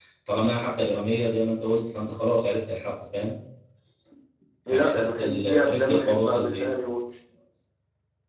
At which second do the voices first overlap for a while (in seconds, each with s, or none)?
4.7 s